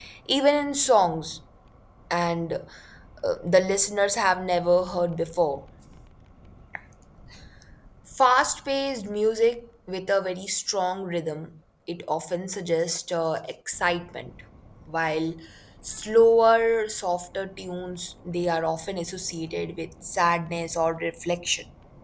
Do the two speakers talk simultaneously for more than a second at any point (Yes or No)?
No